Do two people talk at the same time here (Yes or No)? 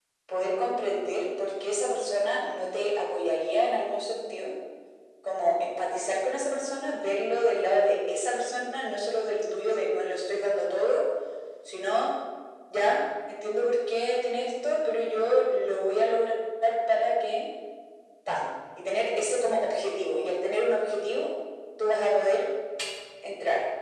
No